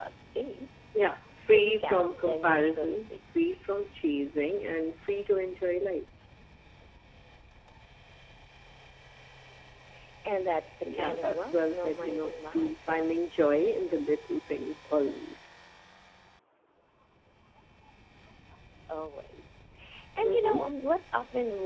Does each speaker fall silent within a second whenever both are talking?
No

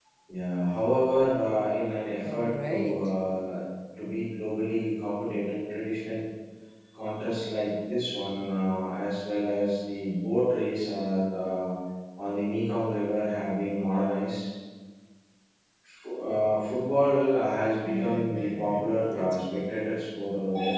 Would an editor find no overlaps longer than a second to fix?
No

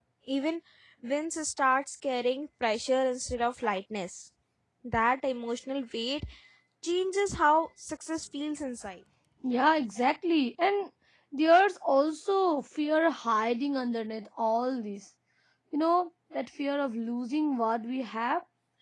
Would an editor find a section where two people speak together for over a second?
No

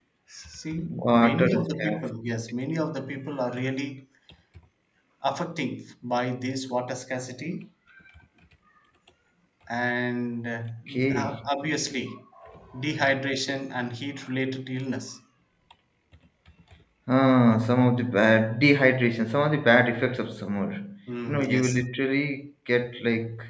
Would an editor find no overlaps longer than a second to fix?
No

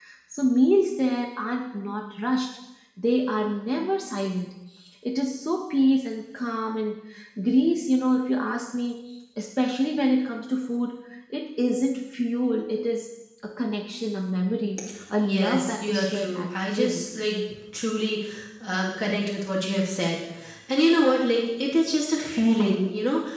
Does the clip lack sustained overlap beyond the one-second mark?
No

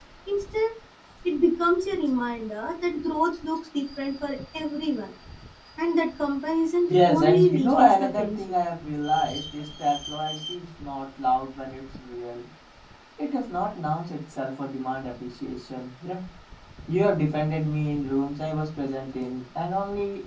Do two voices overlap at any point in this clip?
Yes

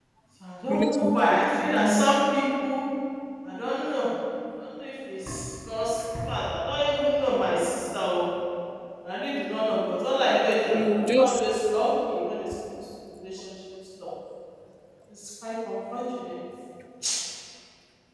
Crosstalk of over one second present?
Yes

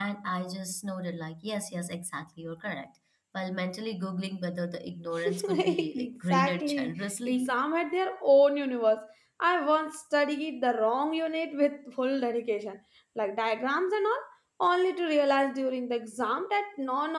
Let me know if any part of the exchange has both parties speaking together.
Yes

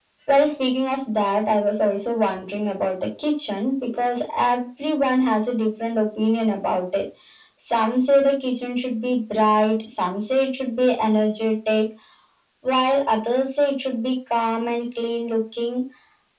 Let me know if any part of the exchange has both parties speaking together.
No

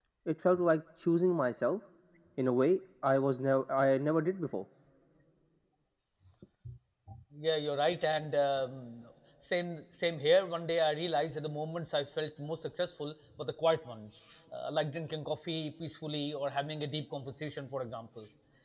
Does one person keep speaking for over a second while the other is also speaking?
No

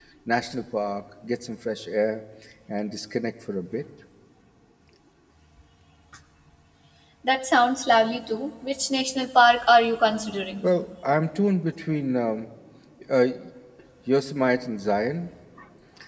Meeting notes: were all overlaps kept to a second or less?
Yes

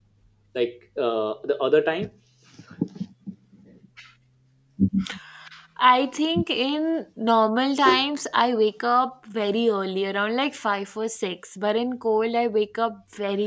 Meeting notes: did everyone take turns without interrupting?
Yes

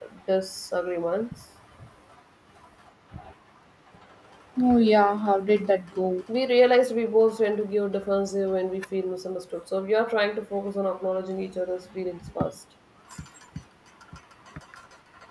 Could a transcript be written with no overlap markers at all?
Yes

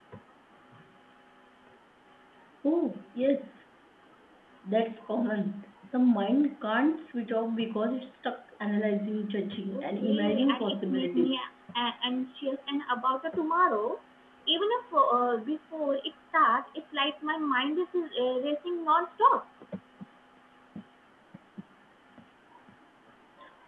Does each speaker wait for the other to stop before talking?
No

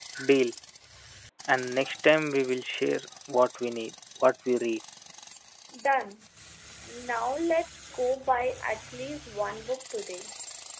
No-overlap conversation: Yes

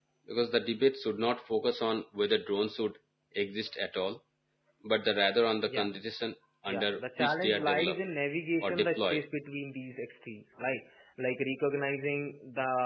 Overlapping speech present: Yes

